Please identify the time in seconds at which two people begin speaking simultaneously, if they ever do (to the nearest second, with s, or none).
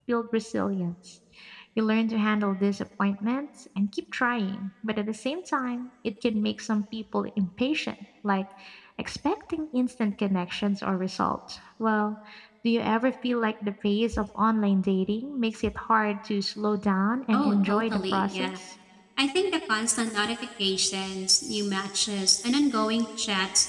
17 s